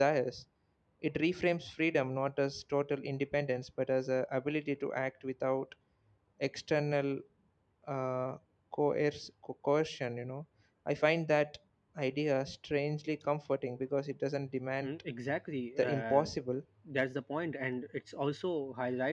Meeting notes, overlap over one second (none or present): none